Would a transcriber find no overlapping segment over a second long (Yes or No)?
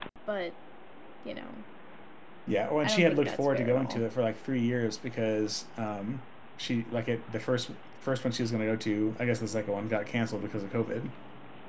No